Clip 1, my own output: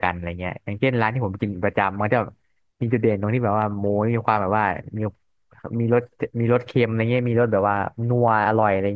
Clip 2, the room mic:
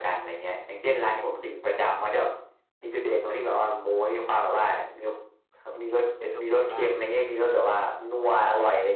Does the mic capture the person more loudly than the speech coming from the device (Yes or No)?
No